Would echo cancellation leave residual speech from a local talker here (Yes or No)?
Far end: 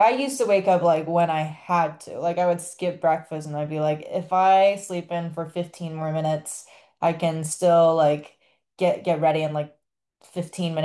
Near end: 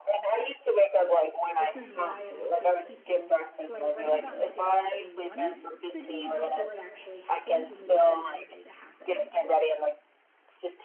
Yes